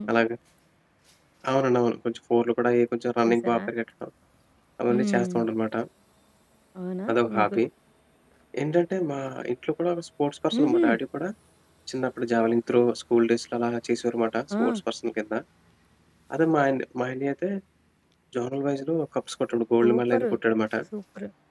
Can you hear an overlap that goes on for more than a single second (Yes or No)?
No